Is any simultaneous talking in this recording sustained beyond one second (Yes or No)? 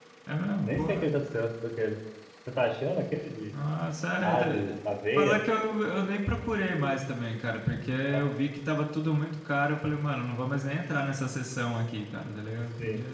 No